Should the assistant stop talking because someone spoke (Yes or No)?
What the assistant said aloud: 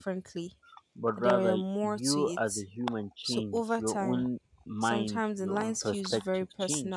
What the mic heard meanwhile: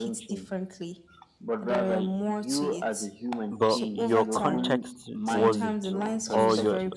Yes